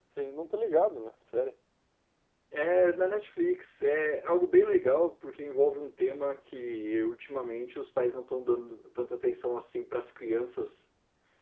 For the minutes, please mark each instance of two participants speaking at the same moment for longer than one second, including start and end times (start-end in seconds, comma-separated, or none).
none